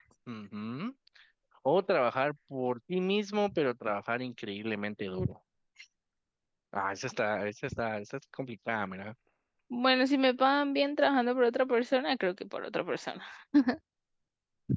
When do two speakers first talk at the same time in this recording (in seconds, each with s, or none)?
none